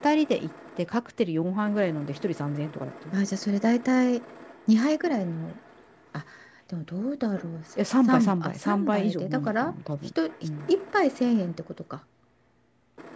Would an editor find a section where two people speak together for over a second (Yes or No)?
Yes